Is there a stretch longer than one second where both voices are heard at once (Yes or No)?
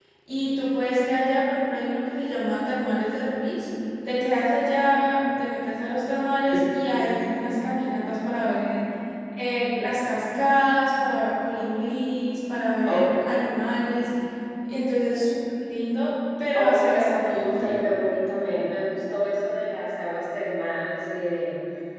Yes